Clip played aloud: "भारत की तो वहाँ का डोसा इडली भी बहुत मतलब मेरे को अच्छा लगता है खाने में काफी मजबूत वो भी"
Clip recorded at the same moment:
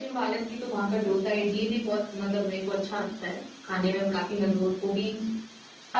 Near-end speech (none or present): none